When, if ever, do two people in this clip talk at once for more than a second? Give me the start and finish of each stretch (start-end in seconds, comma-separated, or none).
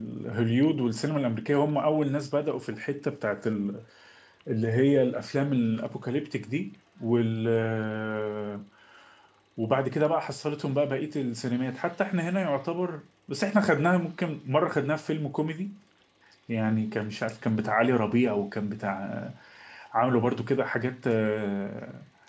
none